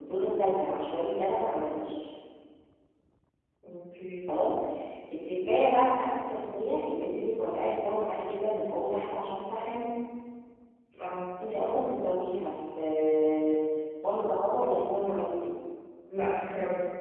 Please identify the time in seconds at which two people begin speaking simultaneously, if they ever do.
none

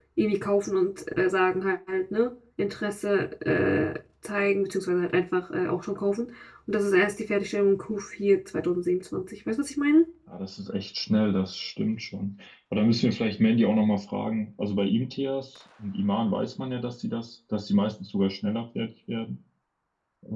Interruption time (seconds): none

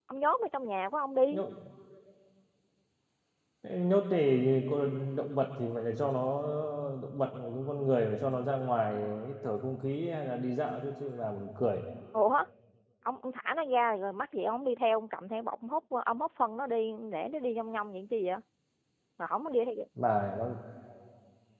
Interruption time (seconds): none

